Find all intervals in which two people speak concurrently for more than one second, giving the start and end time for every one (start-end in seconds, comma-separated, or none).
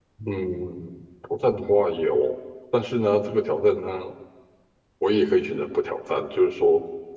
none